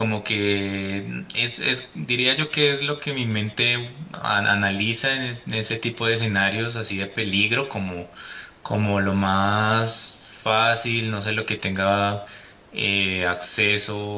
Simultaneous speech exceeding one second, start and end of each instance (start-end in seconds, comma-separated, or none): none